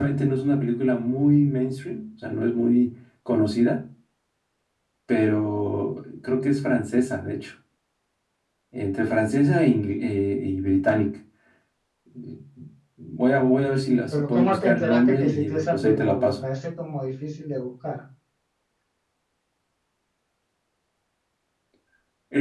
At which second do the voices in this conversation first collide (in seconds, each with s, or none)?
14.1 s